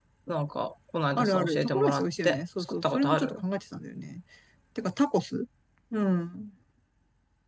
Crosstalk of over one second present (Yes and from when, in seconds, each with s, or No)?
Yes, from 1.2 s